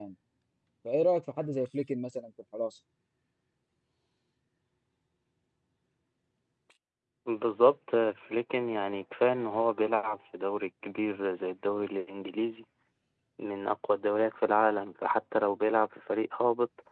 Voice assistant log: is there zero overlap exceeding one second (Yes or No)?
Yes